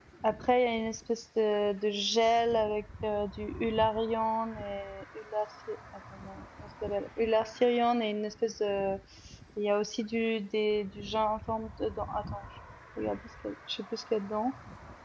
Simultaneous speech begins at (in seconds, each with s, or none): none